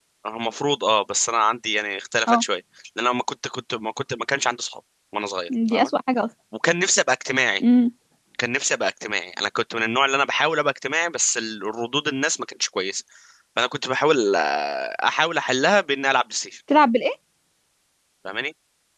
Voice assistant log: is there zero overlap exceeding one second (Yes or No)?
Yes